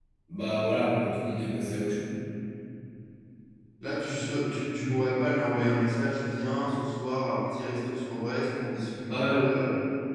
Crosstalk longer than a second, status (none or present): none